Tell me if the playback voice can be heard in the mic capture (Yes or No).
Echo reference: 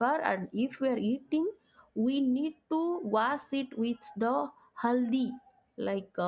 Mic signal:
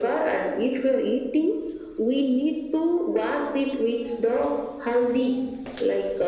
Yes